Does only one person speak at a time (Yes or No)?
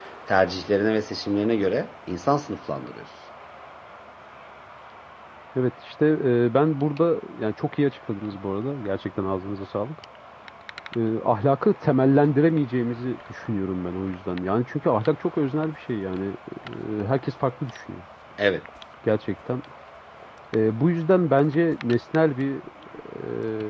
Yes